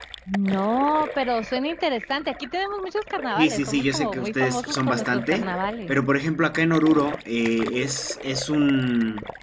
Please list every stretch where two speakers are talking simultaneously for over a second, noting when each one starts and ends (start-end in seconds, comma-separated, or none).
3.4-5.5